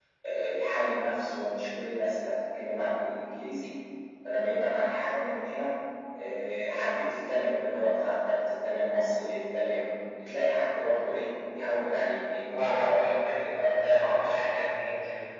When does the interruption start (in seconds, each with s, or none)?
12.5 s